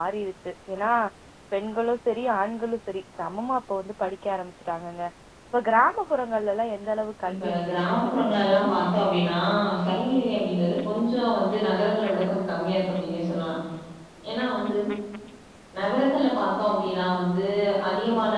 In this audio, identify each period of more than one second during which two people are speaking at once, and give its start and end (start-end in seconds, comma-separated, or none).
7.3-8.8